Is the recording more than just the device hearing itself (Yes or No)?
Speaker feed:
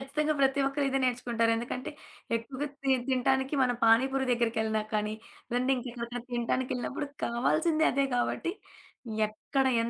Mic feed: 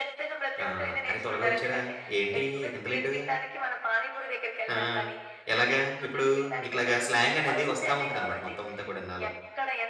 Yes